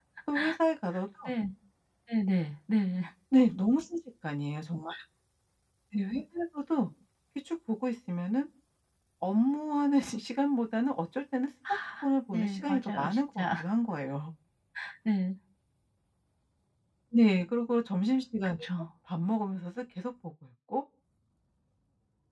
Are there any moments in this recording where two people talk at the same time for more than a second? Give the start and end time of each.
12.3-13.6

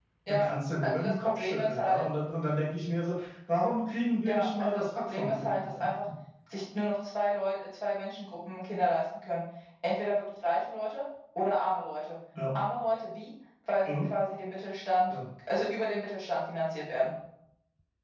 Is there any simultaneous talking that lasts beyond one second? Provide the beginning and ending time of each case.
0.8-2.0, 4.2-5.7

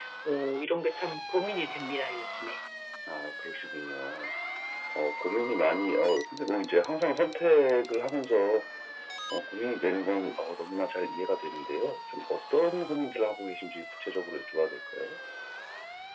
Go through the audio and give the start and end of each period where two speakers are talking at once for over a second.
none

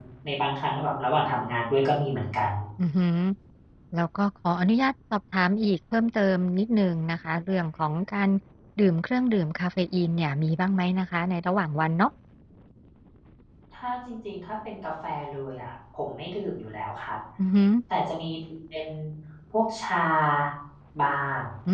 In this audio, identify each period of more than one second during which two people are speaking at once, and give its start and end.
none

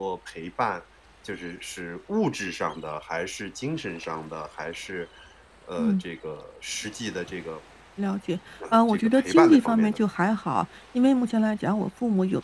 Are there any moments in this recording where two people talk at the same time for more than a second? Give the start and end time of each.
8.7-10.0

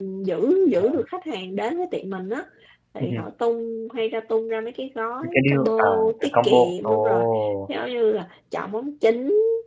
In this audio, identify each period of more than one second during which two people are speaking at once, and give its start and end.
5.2-7.2

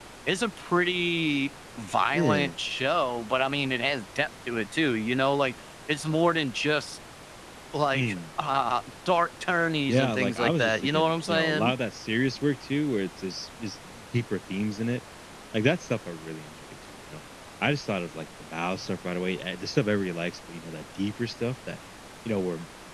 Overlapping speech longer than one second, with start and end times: 9.9-11.7

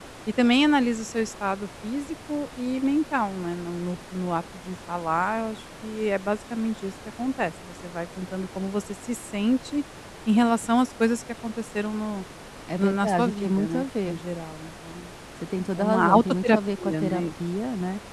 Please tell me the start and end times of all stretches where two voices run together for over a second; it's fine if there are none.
12.8-14.2, 15.8-17.2

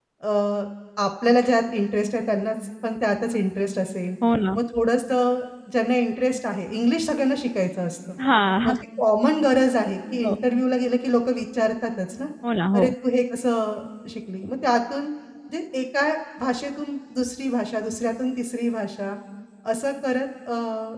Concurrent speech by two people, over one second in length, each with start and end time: none

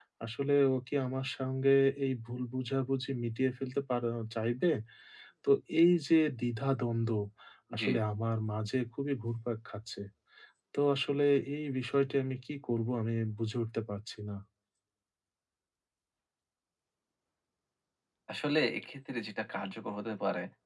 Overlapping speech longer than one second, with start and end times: none

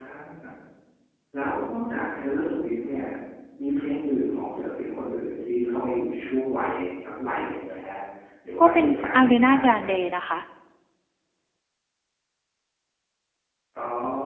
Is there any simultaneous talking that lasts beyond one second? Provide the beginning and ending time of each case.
8.6-9.9

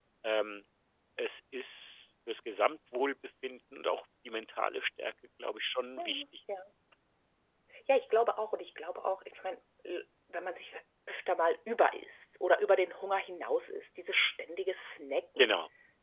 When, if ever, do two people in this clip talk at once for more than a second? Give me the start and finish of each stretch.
none

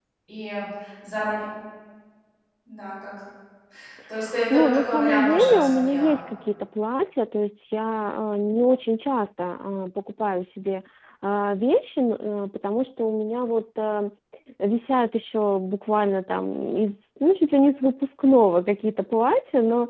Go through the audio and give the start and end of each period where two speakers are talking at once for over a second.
4.5-6.1

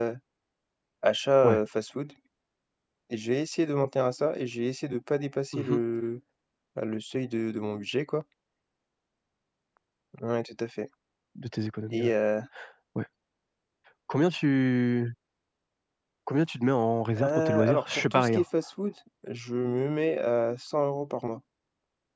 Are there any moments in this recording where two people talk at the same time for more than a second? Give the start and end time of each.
17.2-18.4

